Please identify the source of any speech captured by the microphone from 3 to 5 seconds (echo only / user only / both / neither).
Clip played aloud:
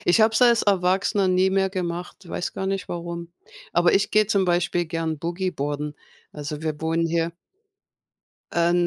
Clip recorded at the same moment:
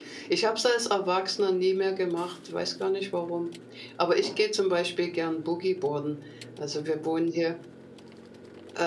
echo only